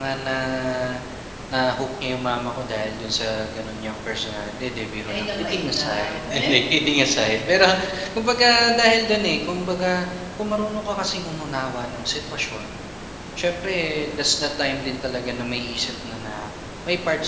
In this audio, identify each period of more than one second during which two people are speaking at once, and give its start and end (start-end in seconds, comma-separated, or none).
5.1-6.5